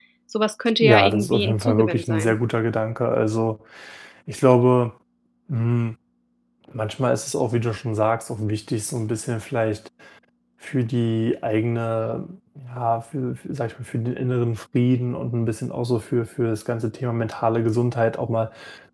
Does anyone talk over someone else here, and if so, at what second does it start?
1 s

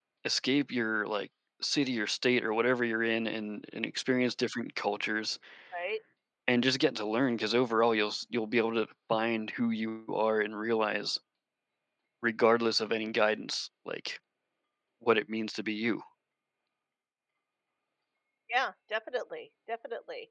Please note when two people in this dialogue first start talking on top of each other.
none

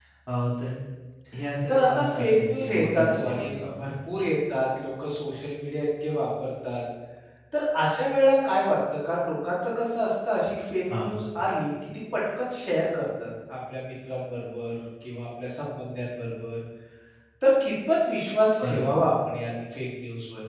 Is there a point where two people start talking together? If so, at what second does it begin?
2 s

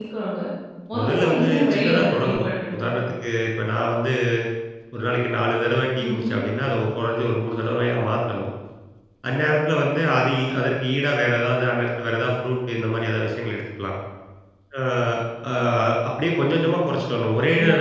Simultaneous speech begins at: 1 s

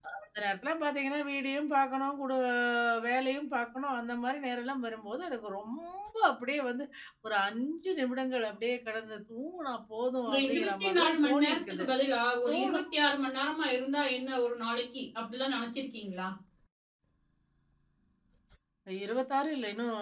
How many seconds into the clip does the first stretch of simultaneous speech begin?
10 s

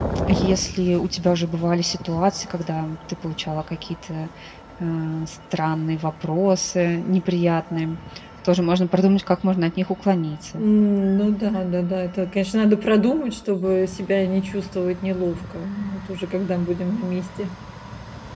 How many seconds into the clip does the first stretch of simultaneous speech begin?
none

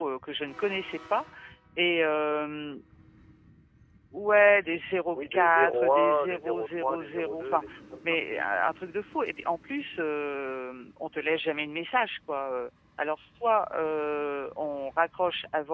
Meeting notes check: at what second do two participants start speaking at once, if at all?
5 s

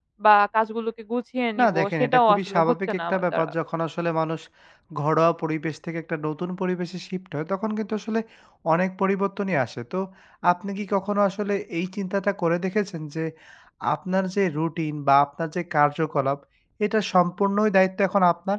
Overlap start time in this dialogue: 2 s

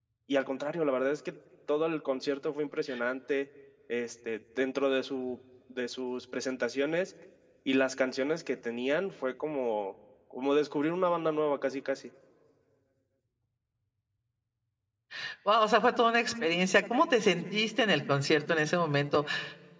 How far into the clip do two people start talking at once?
none

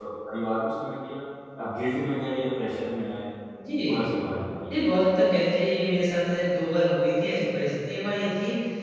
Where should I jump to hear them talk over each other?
none

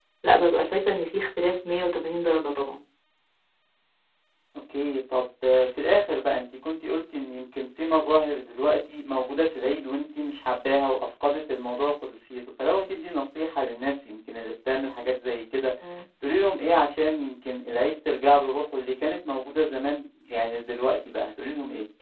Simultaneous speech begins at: none

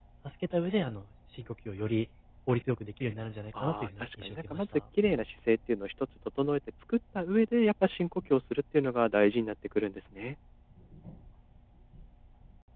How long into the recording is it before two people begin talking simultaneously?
4 s

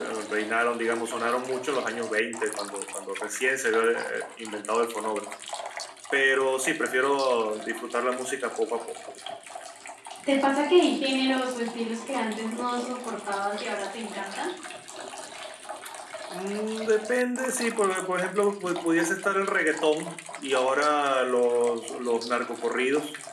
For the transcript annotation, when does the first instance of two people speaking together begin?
none

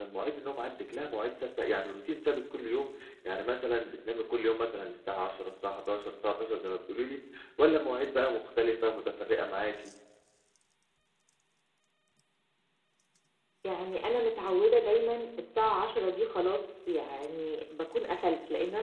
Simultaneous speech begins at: none

